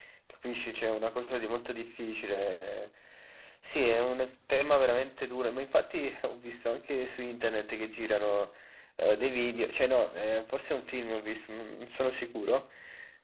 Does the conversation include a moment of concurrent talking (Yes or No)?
No